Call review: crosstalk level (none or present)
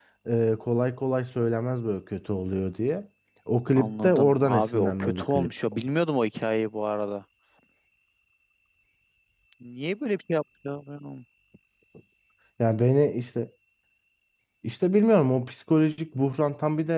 present